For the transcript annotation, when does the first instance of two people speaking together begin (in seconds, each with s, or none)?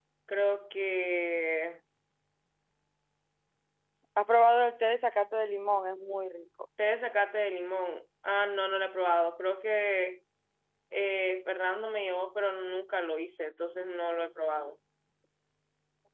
none